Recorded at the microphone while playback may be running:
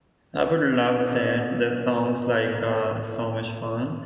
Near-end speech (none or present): present